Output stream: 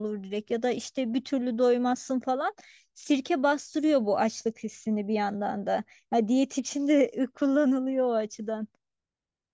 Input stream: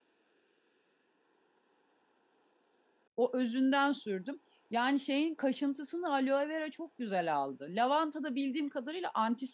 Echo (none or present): none